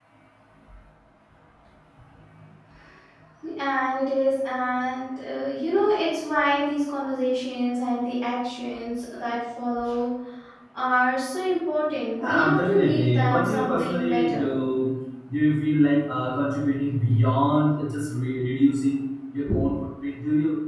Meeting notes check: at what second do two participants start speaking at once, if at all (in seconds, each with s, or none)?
12.2 s